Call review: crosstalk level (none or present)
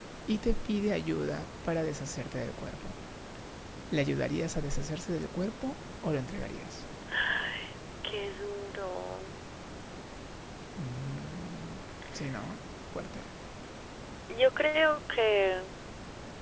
none